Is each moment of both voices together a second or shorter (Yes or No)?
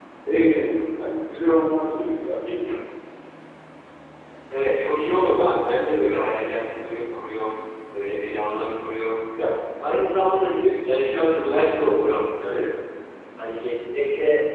Yes